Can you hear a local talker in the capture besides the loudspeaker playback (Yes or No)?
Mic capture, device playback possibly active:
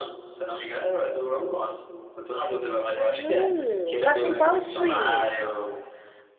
Yes